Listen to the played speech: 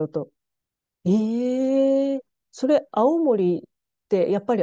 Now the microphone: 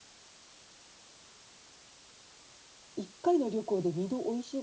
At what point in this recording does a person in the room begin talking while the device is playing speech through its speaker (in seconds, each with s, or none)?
2.9 s